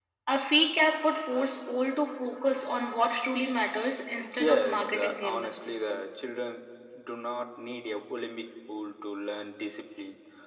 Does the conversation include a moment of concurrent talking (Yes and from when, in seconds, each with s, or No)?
Yes, from 4.4 s